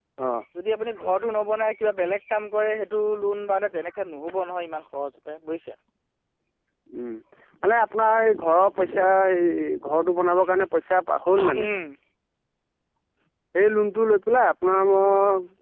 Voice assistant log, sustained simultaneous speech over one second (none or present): none